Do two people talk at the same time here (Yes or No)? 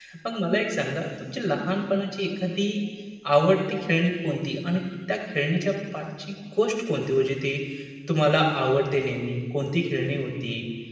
No